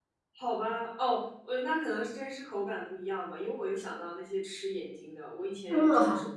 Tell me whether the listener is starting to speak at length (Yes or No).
No